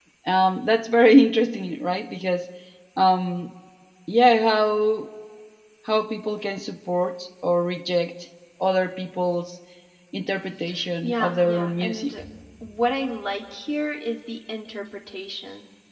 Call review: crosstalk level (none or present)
present